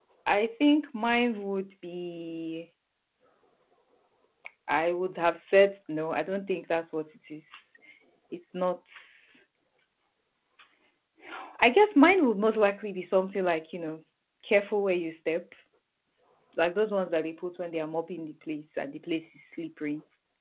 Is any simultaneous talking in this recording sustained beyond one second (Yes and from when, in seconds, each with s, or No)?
No